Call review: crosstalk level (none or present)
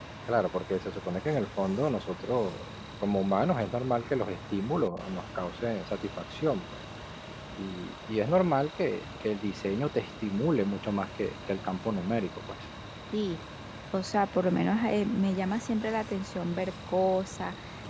none